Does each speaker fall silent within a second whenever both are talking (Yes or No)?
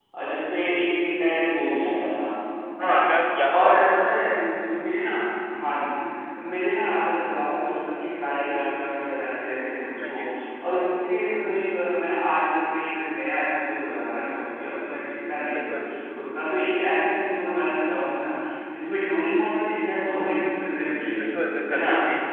Yes